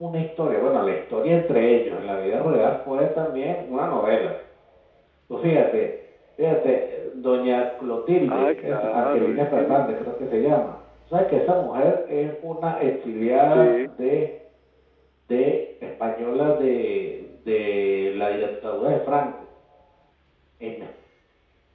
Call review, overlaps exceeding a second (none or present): present